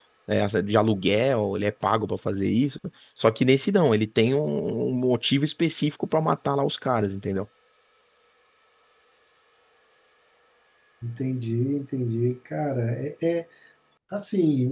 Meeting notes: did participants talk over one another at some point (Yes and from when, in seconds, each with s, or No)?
No